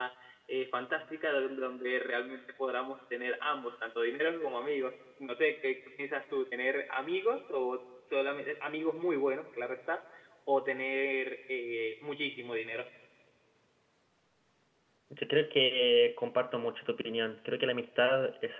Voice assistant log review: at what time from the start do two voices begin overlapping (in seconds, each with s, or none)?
none